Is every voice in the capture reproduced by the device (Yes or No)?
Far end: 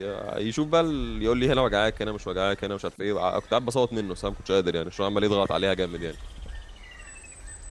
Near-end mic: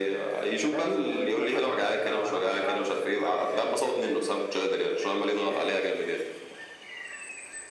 No